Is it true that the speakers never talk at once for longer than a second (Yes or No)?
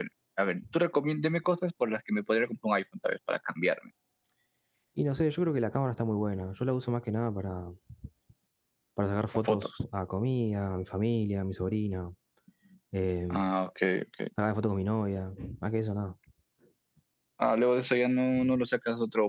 Yes